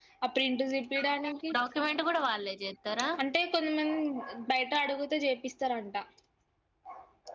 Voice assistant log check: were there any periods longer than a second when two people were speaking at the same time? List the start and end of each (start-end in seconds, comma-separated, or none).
none